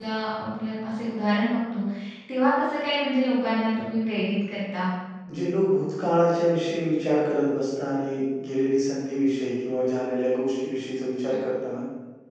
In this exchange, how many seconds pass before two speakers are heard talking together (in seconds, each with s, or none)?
none